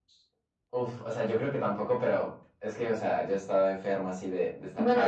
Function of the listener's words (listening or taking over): taking over